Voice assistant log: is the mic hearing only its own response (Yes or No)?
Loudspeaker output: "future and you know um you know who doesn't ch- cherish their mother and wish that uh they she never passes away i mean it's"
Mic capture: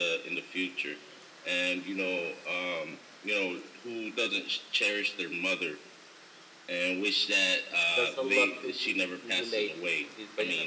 No